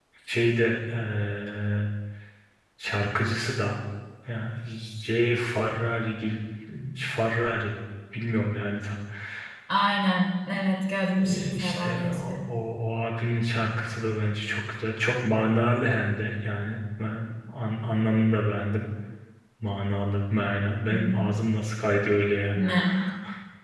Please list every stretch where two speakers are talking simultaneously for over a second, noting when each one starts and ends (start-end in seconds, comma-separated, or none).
11.1-12.4